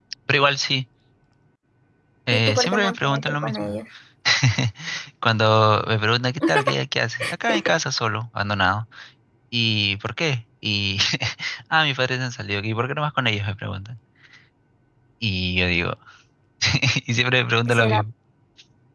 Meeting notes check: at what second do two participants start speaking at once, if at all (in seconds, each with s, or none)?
2.3 s